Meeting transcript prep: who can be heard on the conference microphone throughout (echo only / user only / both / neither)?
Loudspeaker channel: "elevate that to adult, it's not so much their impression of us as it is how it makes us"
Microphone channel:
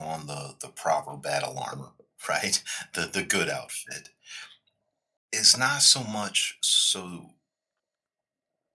user only